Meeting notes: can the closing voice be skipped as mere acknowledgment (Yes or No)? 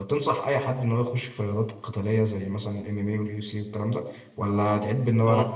Yes